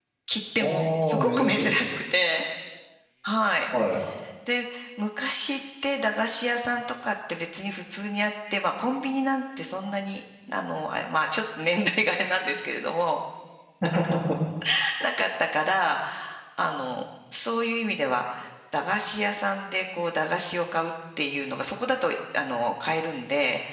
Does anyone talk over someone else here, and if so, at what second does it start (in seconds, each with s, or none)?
0.6 s